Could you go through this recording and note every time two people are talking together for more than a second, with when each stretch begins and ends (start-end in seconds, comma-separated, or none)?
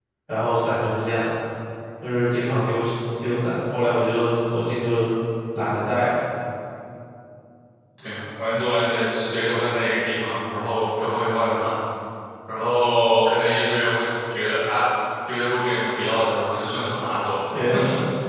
none